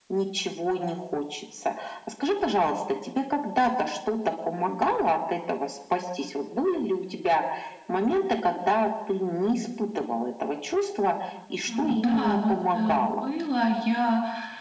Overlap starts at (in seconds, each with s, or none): 11.7 s